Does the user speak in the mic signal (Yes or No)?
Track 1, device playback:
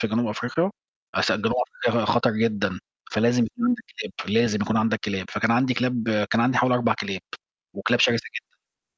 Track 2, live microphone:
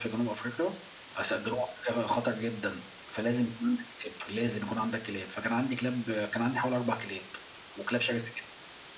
No